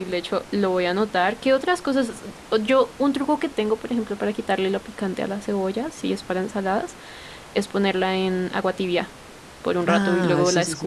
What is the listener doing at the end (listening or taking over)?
taking over